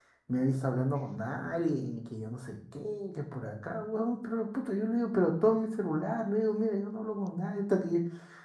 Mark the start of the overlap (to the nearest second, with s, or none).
none